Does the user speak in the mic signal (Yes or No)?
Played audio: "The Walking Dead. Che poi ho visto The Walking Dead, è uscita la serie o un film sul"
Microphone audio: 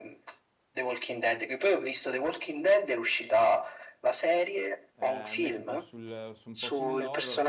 Yes